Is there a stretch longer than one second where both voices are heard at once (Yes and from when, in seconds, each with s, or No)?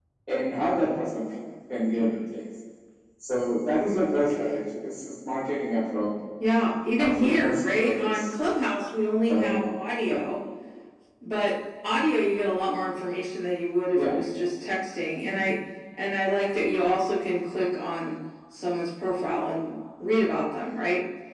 Yes, from 7.0 s